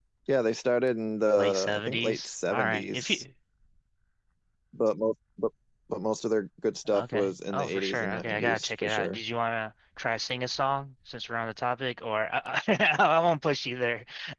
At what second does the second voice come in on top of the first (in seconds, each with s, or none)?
1.4 s